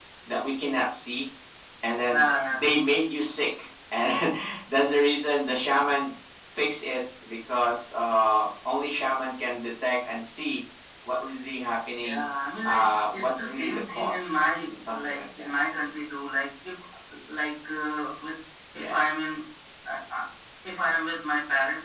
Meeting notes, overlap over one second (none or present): present